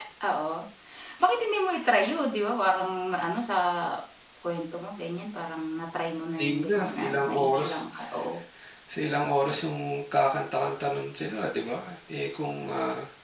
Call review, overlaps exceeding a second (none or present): present